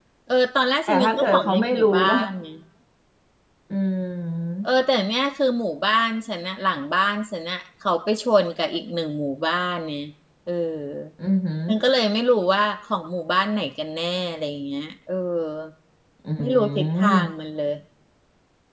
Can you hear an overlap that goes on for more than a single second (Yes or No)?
Yes